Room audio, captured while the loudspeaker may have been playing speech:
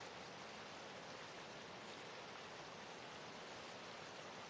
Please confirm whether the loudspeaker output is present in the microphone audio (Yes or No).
No